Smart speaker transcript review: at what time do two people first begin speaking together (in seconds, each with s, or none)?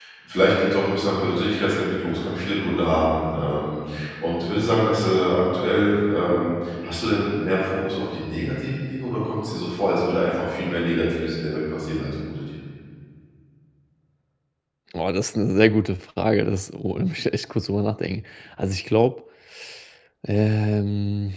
none